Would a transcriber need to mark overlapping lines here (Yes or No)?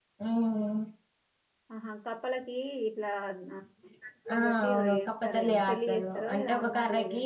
Yes